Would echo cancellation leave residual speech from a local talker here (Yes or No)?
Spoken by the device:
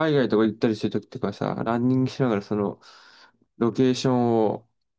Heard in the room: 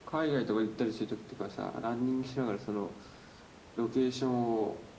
No